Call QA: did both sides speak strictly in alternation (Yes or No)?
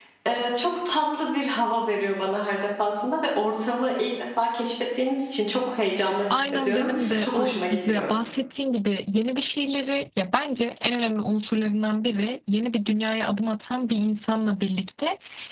No